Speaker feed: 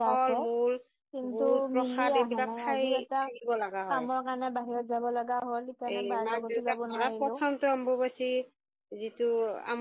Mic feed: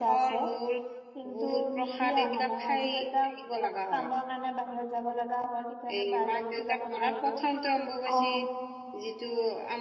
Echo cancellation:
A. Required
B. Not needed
A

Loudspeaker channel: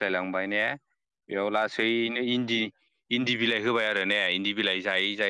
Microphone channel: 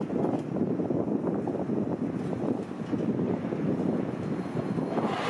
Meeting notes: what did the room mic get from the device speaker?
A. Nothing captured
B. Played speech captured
A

